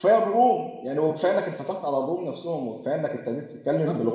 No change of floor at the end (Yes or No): Yes